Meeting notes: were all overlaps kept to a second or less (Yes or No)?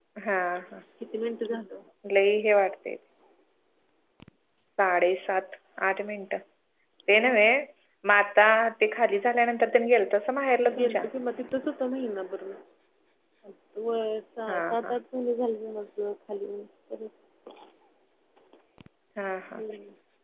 Yes